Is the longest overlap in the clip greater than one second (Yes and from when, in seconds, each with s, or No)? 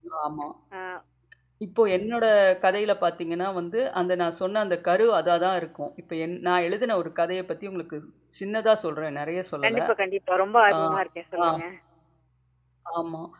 No